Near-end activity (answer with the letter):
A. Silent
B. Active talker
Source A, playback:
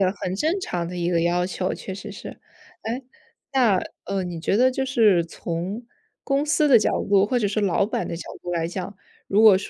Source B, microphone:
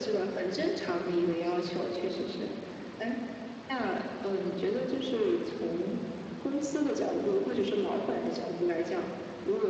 A